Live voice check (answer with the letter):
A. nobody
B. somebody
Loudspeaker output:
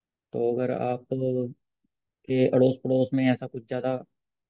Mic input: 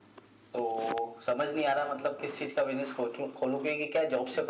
B